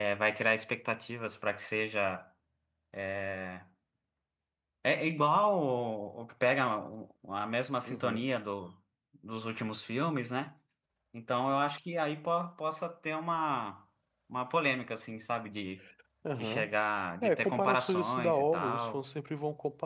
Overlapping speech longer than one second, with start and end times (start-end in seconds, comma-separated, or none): 17.2-19.0